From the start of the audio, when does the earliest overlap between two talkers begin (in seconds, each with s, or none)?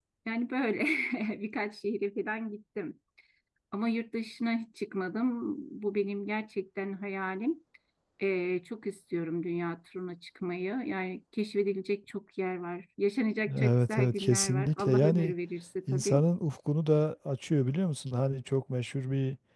13.6 s